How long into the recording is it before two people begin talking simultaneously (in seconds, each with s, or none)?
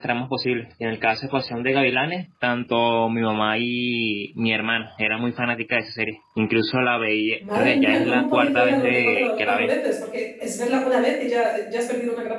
7.4 s